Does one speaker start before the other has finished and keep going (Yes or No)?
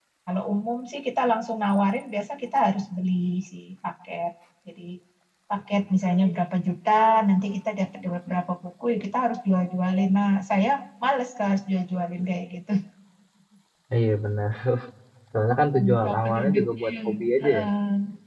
Yes